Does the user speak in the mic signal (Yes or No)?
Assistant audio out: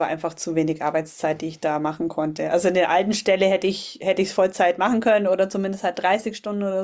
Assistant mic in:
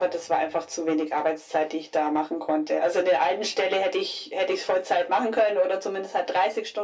No